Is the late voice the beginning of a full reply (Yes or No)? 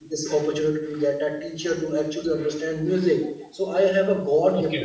No